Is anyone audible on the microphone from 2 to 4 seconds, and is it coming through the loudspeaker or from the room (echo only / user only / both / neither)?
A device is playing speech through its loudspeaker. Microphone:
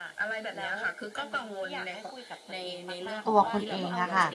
both